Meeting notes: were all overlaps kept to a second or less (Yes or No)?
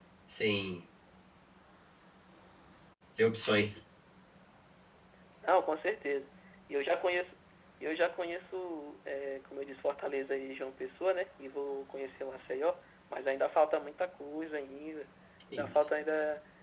Yes